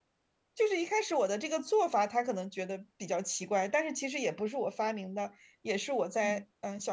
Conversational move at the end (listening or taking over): listening